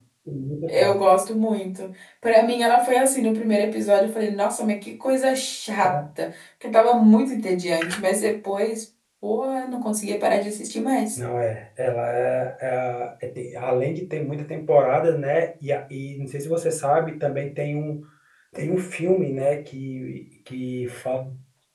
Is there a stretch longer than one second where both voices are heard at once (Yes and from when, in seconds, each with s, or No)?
No